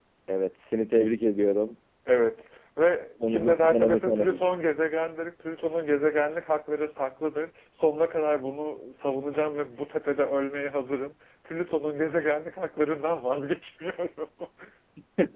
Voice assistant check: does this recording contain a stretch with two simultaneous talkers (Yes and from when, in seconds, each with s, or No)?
Yes, from 3.2 s